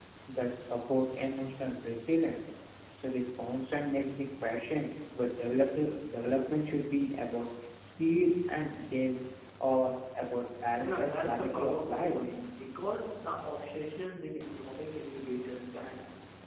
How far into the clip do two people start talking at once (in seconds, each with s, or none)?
10.8 s